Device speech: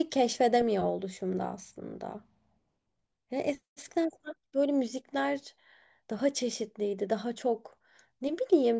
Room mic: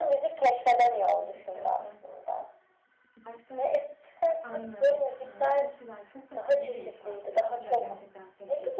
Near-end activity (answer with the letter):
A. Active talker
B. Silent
A